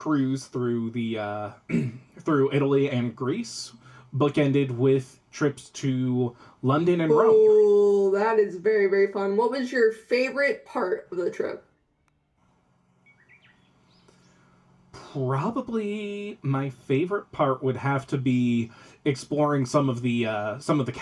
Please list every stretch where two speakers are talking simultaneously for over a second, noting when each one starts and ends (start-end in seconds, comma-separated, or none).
none